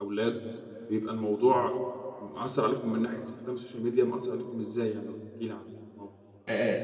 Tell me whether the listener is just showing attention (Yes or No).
No